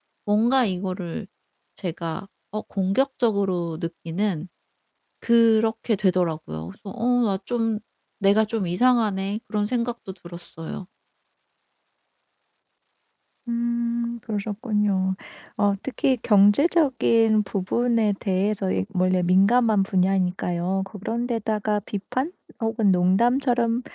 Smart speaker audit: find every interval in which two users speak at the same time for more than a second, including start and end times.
none

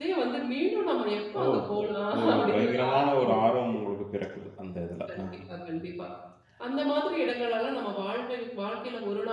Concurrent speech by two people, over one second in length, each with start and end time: 2.2-3.4

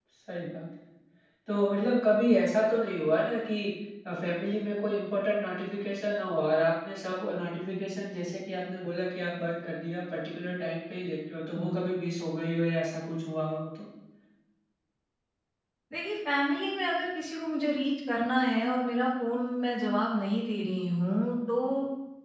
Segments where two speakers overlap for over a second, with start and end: none

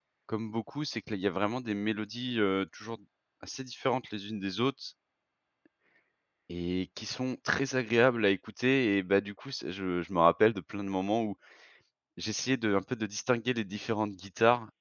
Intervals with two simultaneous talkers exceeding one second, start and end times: none

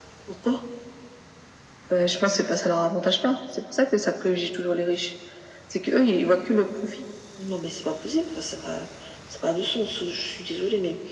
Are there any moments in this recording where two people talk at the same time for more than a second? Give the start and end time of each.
none

